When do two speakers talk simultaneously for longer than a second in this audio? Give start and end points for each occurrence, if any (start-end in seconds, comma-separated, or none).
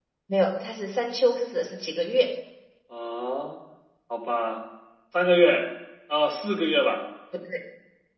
none